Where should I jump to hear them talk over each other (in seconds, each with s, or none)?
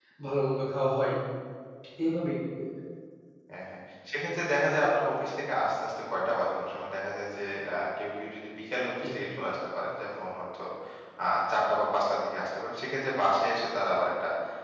none